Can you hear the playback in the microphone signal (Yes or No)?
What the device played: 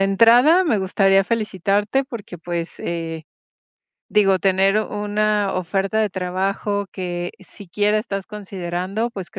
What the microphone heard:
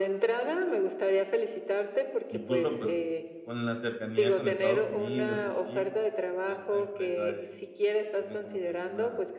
Yes